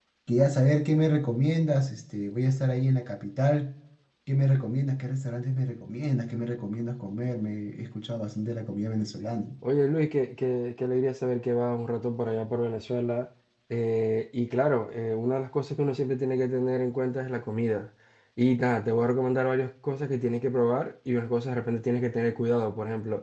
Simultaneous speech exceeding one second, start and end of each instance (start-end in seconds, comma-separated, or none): none